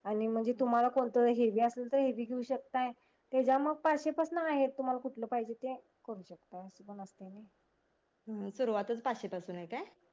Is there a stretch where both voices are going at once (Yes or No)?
No